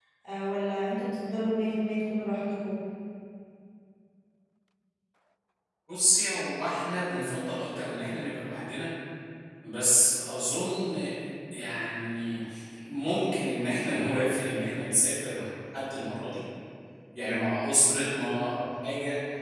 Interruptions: none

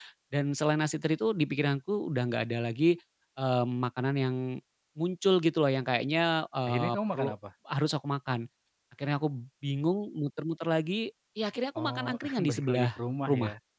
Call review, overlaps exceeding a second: present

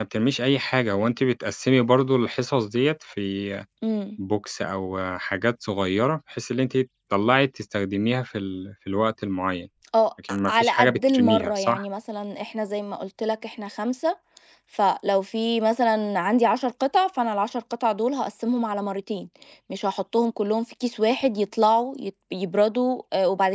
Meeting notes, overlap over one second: present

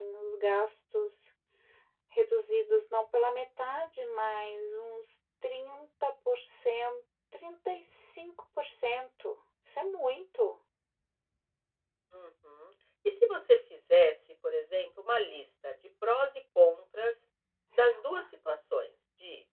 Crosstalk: none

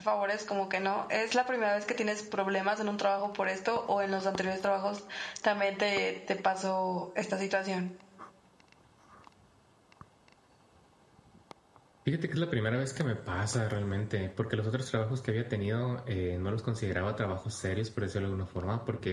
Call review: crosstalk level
none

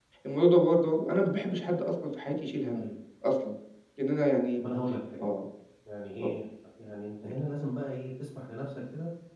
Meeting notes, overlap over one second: none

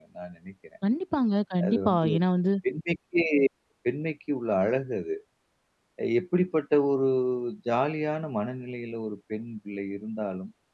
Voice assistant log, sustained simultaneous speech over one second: none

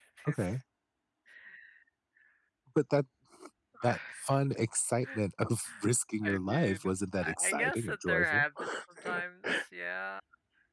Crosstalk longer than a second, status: present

